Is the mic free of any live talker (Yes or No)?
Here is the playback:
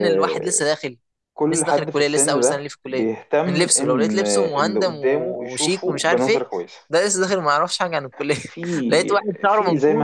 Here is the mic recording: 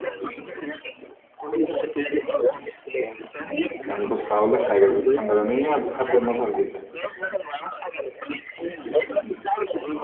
No